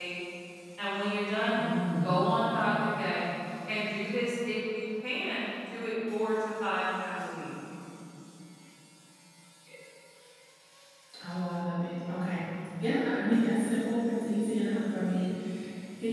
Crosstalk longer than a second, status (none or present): none